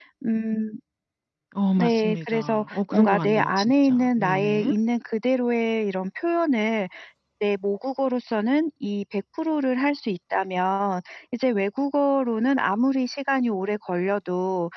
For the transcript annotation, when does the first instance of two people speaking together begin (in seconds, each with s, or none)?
1.8 s